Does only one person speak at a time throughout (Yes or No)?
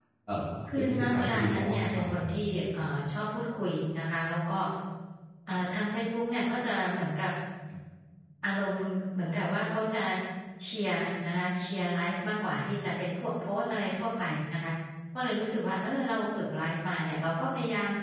No